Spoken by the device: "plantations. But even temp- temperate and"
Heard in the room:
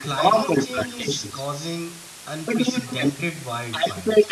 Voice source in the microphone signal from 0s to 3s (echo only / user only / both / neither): both